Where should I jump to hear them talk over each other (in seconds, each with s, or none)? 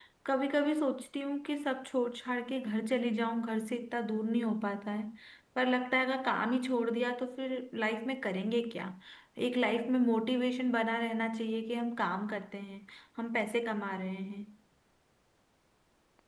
none